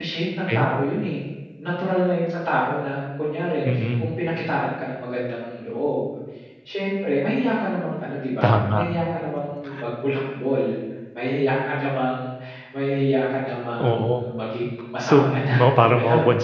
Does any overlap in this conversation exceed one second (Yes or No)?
Yes